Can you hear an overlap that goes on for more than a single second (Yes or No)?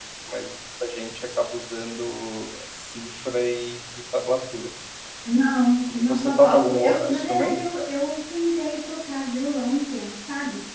Yes